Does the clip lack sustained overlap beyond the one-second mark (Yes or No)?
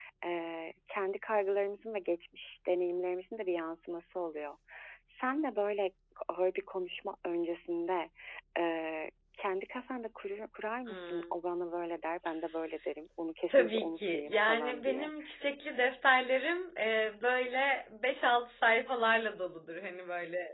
No